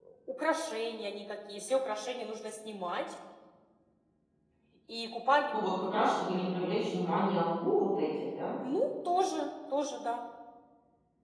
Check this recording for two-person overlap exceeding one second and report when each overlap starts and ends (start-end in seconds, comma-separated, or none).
none